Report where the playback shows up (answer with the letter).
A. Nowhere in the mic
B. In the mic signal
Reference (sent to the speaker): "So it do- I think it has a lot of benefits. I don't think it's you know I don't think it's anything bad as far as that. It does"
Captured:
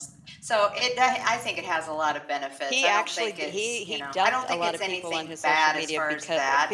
B